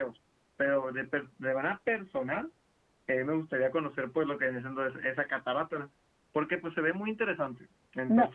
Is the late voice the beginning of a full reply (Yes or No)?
Yes